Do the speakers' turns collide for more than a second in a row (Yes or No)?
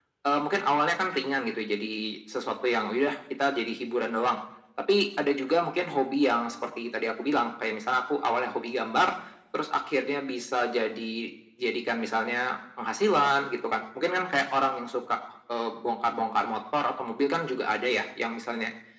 No